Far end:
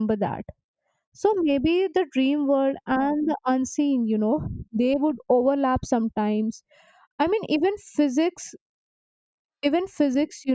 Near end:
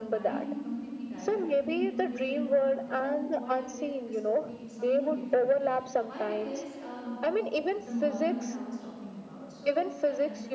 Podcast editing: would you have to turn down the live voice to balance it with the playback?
No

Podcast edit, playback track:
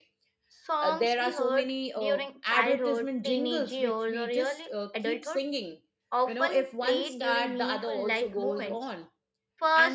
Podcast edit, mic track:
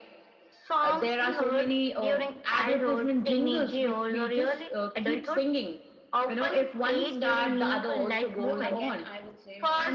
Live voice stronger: No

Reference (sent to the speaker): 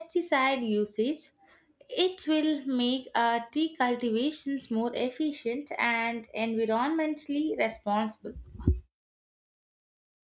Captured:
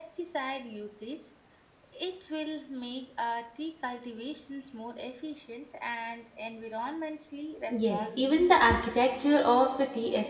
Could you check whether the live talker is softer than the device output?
No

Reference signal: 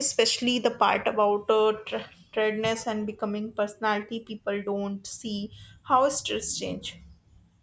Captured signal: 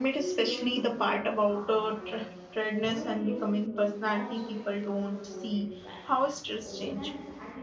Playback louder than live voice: Yes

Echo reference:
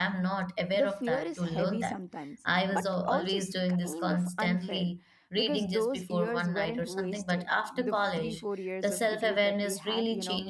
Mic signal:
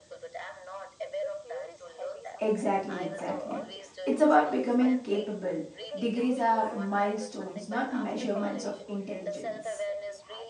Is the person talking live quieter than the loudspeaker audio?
No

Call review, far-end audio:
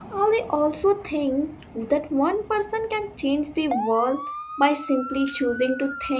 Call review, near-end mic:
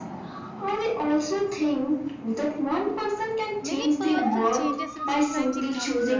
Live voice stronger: No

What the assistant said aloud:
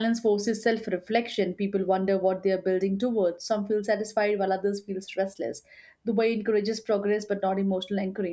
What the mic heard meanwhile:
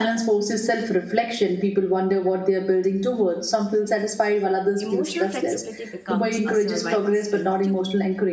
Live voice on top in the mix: No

